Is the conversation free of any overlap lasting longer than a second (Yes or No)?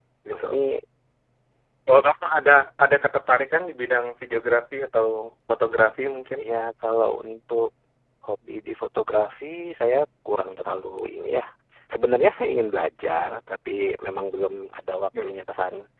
Yes